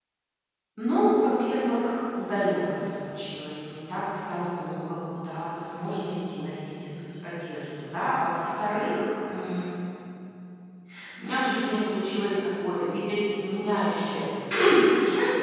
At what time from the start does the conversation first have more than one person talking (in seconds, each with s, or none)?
none